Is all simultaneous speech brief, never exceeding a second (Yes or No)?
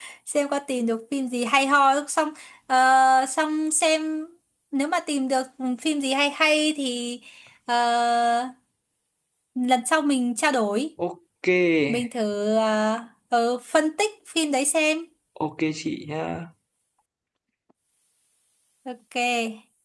Yes